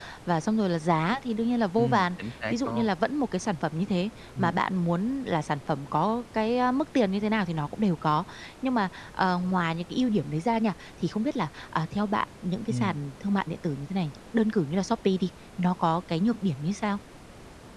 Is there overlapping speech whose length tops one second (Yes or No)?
No